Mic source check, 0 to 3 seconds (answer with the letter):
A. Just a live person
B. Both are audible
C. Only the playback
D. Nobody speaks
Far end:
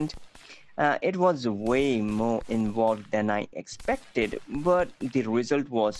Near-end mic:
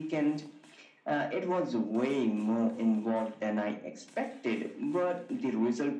C